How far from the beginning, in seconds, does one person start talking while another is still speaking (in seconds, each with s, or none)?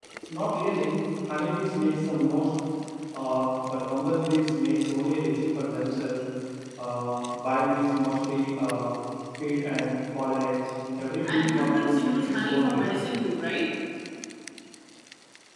11.2 s